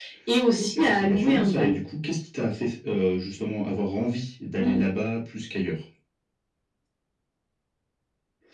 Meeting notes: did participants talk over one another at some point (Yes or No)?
Yes